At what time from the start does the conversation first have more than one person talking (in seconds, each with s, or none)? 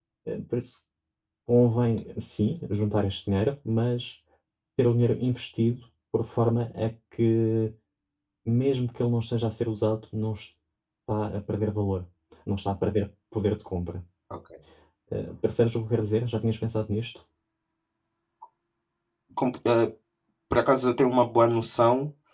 none